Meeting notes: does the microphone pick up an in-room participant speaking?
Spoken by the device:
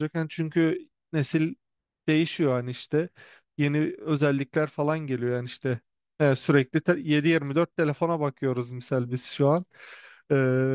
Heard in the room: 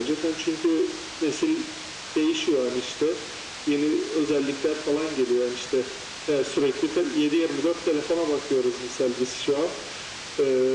No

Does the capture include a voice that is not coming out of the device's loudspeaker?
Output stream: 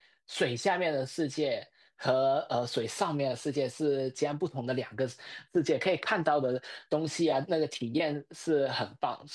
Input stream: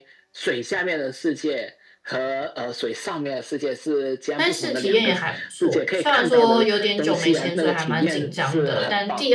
Yes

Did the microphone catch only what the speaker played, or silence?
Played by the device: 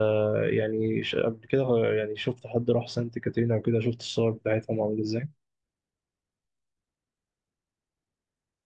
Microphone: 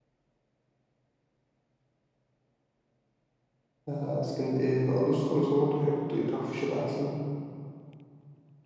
No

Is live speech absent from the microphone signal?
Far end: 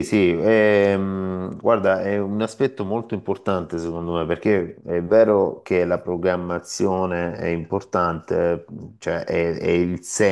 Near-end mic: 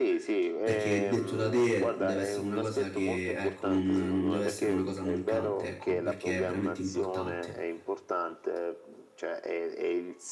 No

